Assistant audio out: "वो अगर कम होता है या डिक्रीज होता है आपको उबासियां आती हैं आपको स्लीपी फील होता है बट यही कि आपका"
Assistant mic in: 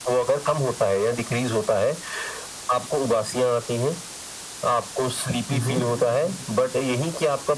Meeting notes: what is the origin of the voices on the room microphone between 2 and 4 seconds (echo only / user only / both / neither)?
echo only